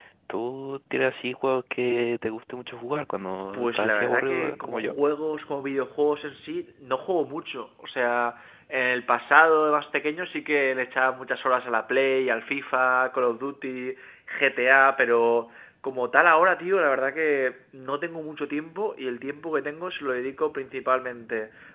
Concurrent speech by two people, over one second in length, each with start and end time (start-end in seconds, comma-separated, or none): 3.5-4.9